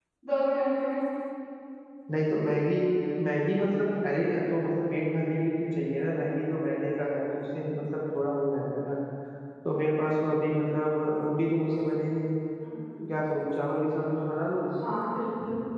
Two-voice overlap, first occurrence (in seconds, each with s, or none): none